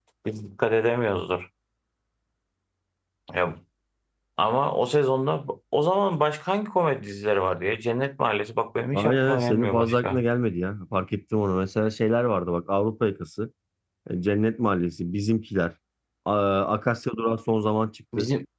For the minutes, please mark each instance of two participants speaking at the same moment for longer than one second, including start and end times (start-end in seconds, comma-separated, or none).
8.9-10.2